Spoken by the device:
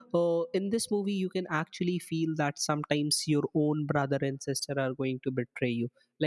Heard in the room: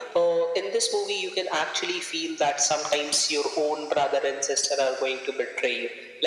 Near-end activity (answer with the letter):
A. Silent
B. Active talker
A